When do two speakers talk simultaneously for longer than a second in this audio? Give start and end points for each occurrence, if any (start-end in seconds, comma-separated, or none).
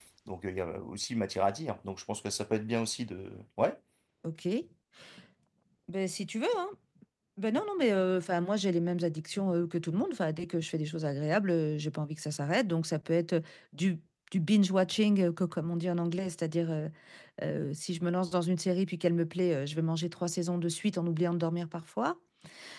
none